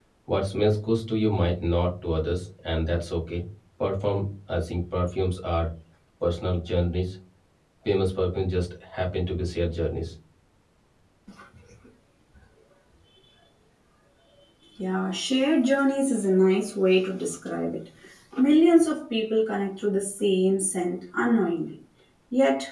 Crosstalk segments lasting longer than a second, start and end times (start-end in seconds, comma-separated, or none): none